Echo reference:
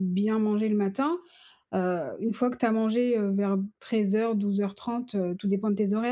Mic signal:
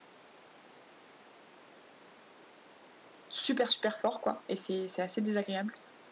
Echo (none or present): none